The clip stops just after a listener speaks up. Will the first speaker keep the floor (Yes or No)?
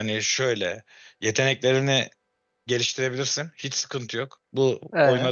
Yes